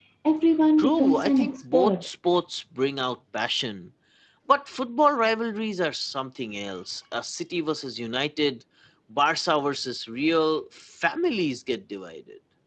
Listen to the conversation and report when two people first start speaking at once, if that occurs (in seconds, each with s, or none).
0.8 s